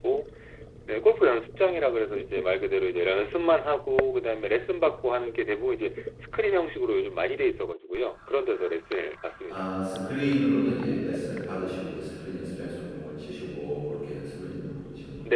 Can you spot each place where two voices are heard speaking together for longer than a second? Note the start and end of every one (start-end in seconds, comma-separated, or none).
none